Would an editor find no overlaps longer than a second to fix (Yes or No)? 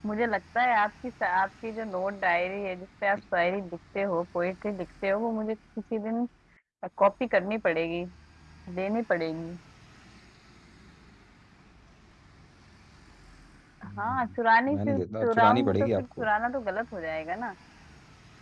No